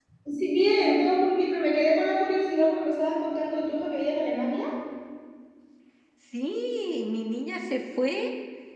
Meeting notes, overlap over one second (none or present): none